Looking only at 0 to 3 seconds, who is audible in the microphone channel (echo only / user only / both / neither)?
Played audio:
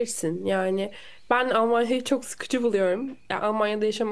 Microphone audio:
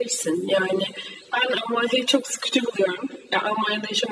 echo only